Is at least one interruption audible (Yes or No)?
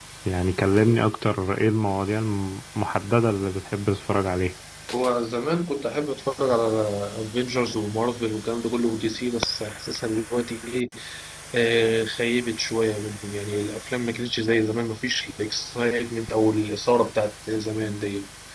No